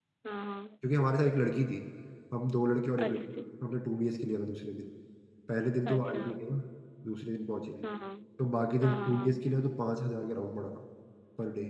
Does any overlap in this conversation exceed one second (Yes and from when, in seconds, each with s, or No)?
No